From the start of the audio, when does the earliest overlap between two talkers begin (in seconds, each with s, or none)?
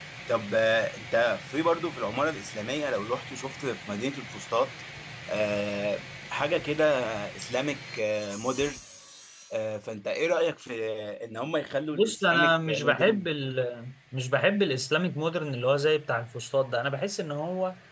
11.9 s